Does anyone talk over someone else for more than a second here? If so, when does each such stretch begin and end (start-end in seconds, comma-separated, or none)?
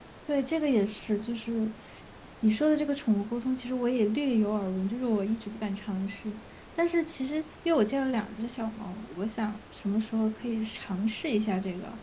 none